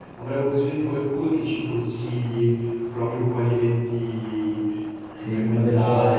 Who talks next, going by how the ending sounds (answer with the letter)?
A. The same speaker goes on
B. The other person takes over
B